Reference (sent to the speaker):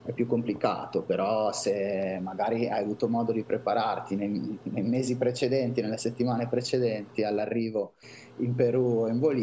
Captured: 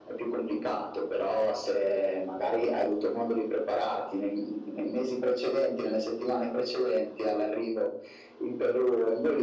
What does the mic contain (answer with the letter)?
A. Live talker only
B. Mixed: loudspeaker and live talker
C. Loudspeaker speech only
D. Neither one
C